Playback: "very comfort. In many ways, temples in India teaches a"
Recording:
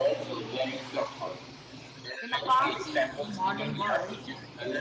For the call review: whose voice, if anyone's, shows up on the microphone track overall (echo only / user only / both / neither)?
both